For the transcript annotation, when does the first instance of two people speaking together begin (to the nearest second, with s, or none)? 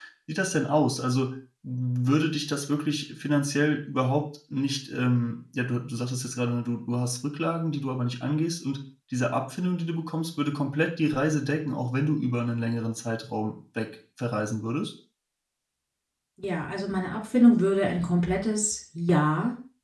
none